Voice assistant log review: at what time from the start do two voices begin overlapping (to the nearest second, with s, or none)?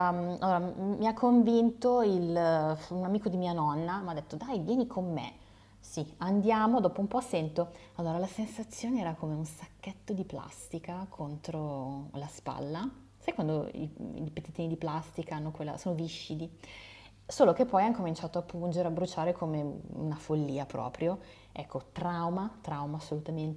none